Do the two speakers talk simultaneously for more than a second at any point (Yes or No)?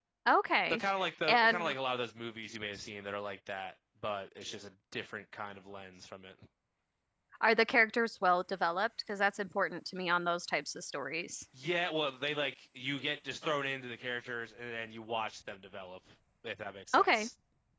No